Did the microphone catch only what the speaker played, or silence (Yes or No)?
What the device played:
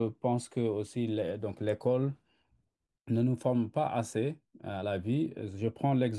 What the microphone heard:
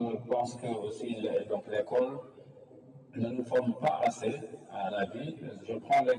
Yes